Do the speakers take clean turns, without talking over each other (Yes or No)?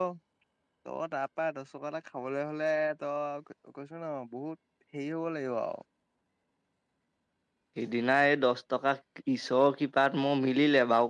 Yes